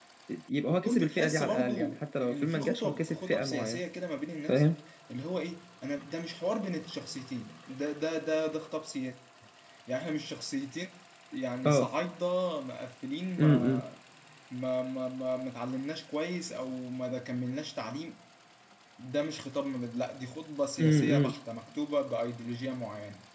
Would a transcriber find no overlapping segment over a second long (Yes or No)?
No